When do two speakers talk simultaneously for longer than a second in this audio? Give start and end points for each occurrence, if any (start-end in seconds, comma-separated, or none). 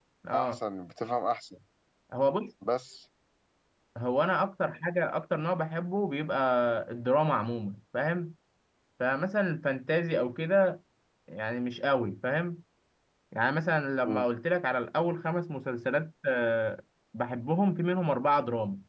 none